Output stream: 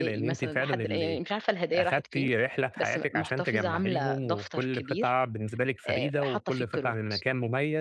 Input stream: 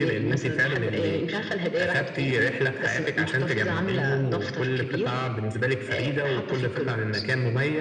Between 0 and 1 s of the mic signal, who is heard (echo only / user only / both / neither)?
echo only